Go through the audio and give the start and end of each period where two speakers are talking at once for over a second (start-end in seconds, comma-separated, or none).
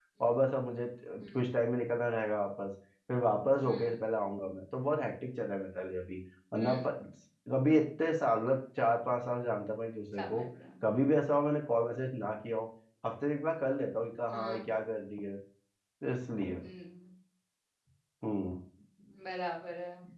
none